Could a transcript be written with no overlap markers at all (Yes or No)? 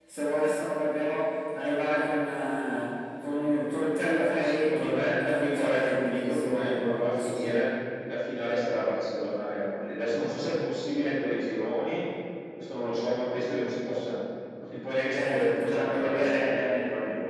No